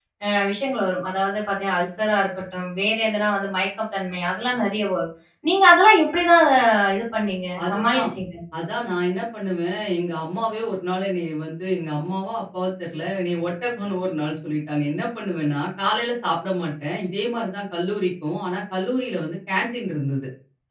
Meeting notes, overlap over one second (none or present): none